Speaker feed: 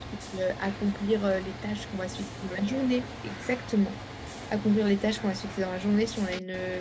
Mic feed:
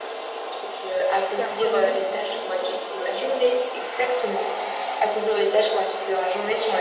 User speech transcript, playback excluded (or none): personnel du coup.